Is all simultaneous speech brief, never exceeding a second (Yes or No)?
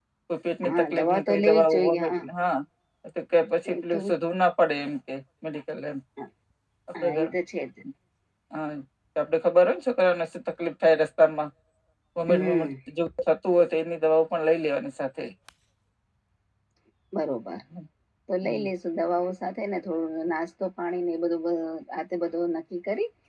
No